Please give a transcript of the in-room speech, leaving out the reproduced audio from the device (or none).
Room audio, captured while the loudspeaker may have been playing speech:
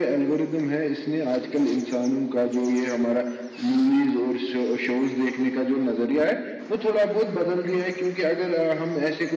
none